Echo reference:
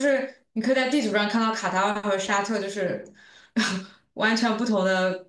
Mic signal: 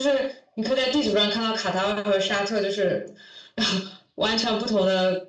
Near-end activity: none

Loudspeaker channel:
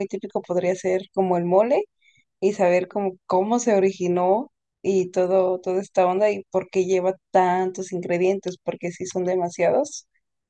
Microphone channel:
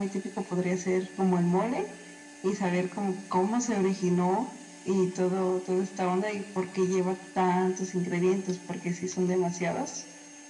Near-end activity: none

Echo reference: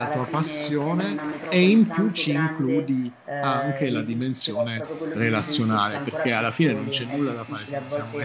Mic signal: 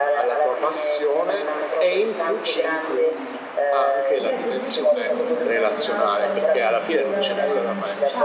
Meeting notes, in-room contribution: present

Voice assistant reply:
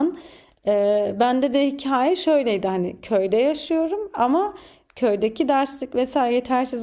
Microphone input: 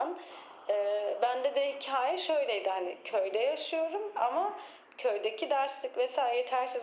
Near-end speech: none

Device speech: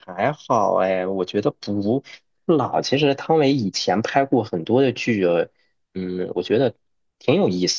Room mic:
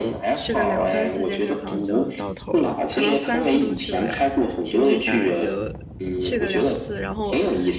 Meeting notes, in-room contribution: present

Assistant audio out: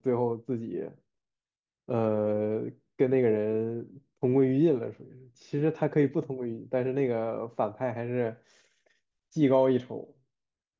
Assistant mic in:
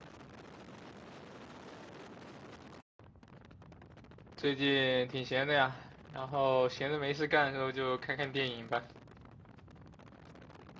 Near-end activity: present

